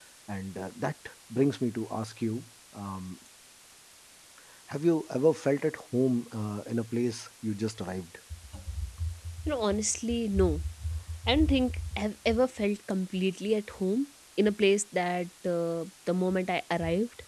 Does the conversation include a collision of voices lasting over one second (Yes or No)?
No